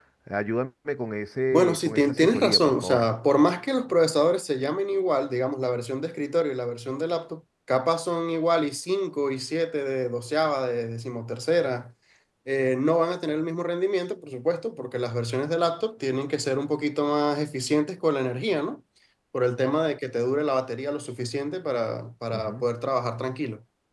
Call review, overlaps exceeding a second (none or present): present